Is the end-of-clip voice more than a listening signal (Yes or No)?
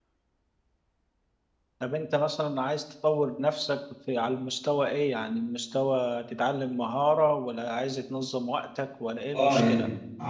Yes